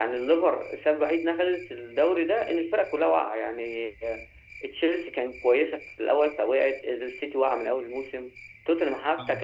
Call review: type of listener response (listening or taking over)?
listening